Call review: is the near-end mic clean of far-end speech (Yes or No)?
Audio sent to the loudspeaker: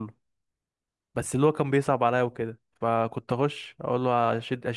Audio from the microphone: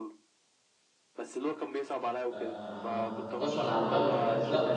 No